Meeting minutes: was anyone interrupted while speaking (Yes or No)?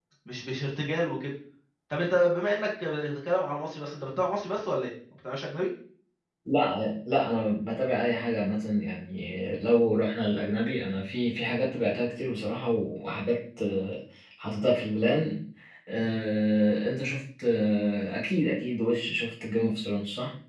No